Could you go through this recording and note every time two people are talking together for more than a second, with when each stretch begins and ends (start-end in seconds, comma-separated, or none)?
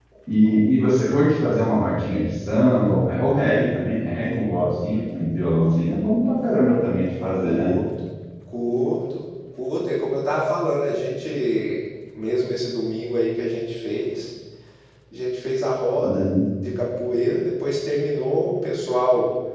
none